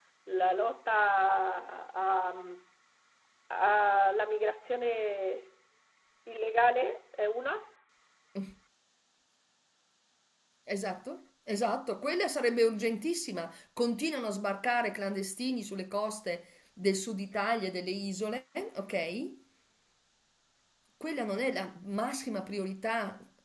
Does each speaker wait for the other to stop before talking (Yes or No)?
Yes